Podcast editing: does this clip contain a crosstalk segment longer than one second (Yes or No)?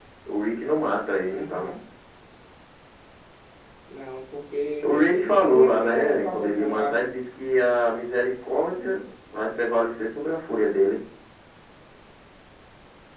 Yes